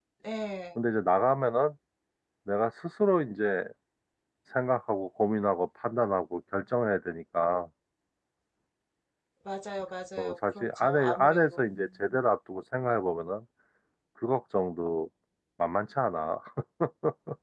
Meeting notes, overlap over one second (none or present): present